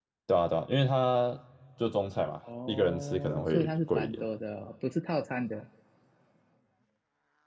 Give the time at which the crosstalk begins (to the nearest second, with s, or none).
3 s